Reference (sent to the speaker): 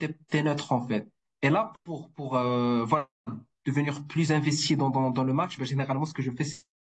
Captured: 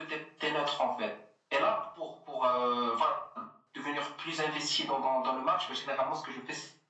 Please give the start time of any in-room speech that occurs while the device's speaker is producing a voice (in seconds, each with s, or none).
none